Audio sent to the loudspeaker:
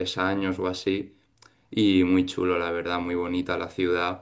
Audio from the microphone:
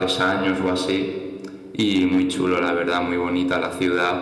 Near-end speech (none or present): none